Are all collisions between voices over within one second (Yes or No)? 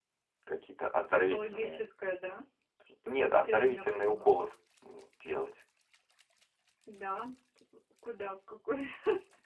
No